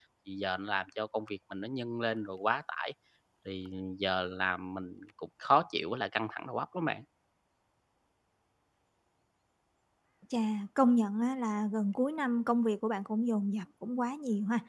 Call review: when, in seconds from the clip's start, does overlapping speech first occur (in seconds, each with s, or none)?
none